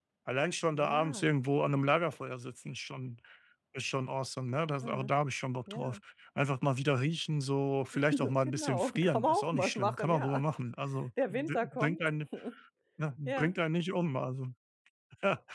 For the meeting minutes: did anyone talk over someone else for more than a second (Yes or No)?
Yes